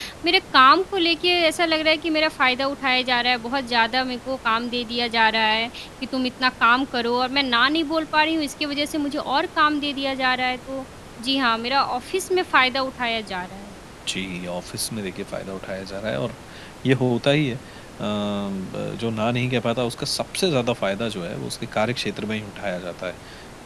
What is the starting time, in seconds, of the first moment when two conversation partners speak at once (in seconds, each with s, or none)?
none